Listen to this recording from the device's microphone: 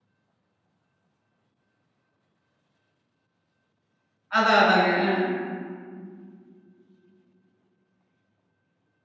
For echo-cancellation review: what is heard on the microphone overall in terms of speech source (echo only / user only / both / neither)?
user only